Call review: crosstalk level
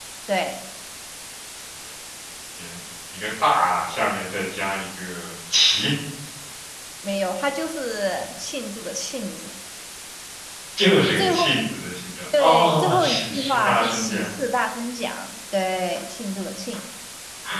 present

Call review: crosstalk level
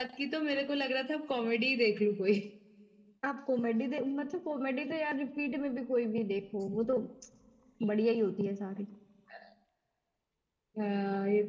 none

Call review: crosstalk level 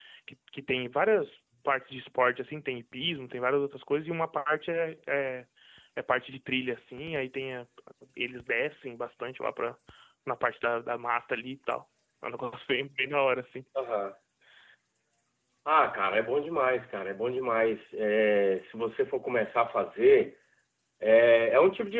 none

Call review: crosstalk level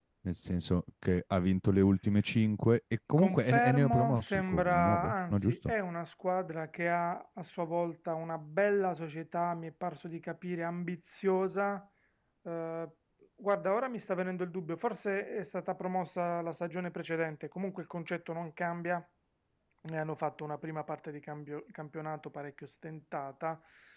present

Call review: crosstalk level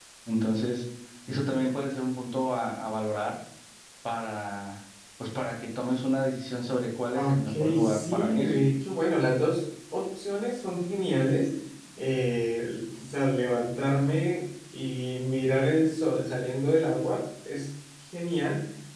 present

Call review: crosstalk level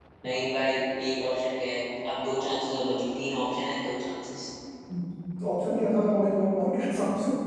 none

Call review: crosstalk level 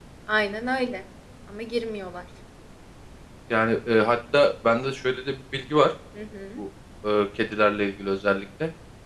none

